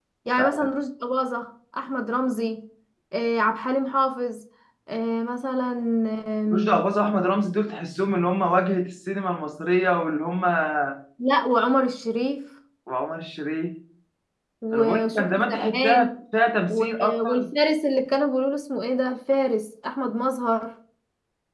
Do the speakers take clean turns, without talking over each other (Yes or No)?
No